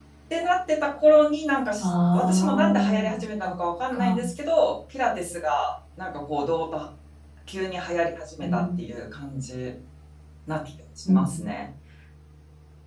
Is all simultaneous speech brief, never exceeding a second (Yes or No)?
No